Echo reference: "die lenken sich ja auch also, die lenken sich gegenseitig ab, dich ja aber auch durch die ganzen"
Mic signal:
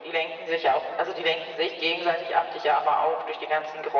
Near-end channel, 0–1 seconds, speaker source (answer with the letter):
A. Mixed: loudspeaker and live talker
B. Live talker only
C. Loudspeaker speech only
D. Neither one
C